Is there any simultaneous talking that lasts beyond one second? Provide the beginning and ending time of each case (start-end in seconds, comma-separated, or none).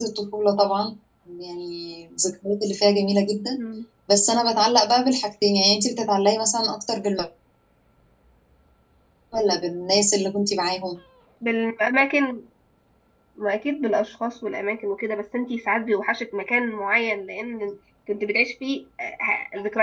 none